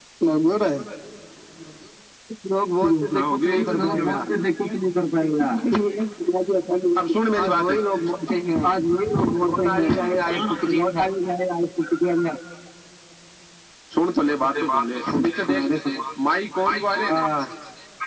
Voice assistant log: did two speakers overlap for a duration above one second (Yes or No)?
Yes